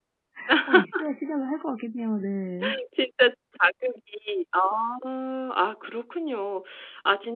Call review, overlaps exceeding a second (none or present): none